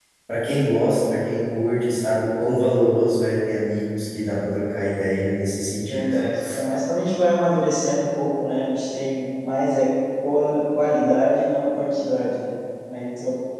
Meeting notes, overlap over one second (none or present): none